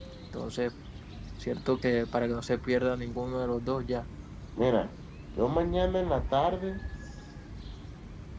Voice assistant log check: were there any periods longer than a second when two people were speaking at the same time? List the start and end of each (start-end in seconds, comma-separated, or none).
none